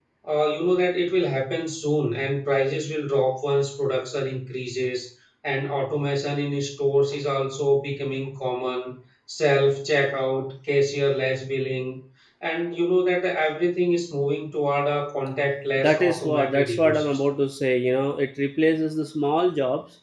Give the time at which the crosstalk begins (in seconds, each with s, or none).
15.8 s